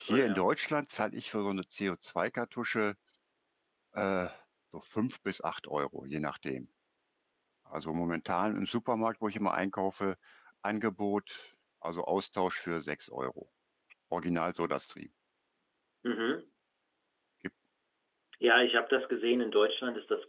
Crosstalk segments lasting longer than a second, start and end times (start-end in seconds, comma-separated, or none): none